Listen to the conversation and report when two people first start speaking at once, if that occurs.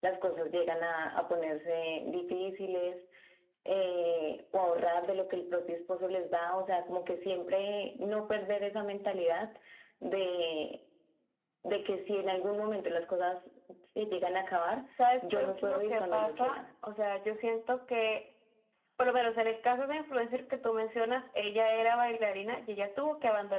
15.3 s

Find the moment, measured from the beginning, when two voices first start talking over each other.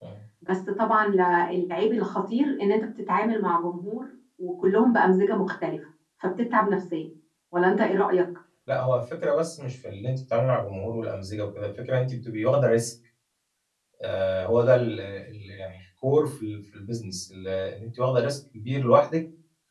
none

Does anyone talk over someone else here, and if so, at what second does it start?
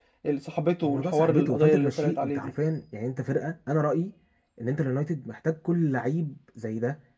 0.8 s

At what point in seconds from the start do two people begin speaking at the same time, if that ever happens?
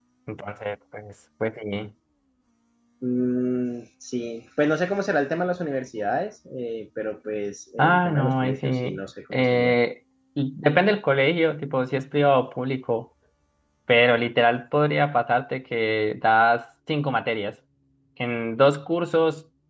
7.8 s

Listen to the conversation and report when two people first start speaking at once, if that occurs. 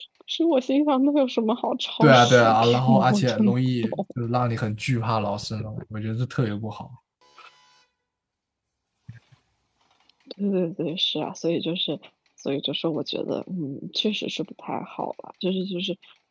2.0 s

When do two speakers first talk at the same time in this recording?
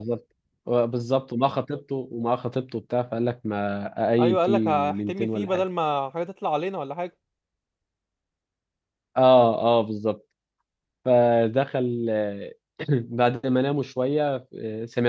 4.2 s

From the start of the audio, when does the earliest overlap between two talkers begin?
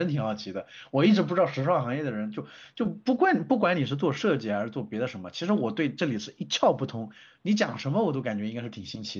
none

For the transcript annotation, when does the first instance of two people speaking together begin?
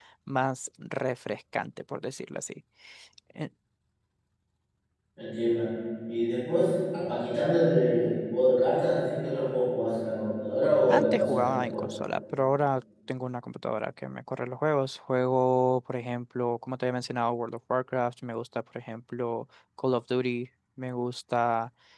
10.6 s

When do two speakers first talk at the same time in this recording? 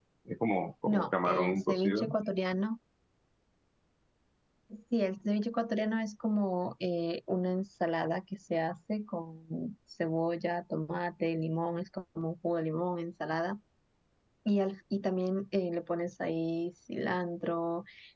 0.9 s

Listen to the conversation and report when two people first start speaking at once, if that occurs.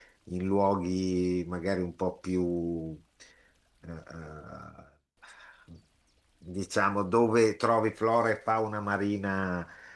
none

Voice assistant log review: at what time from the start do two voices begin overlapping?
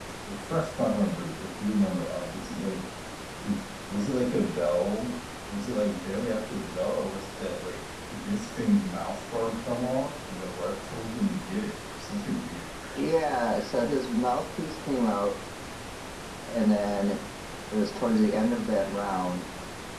none

